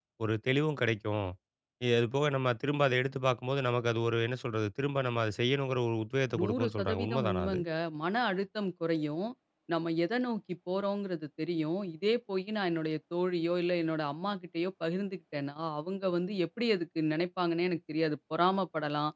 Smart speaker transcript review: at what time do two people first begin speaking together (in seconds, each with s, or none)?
6.3 s